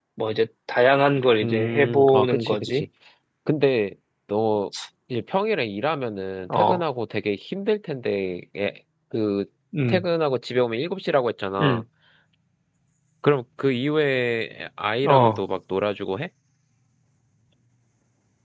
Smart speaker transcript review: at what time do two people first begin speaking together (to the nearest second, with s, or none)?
1 s